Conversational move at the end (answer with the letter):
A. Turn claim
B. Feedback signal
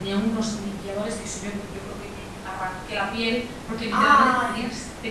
B